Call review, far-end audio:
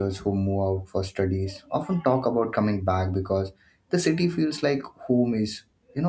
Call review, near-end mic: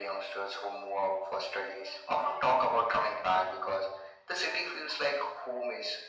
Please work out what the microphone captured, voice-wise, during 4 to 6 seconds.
echo only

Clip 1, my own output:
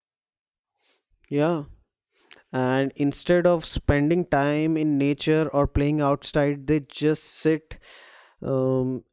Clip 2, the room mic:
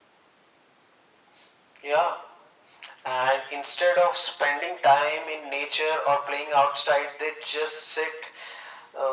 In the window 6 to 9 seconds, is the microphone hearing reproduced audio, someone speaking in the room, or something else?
echo only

